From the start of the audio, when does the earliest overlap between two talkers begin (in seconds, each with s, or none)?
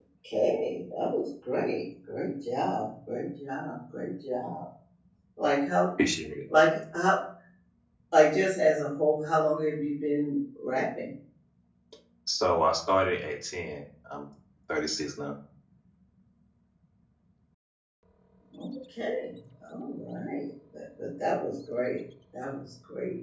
none